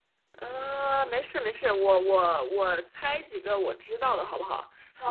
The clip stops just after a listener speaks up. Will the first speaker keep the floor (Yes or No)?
No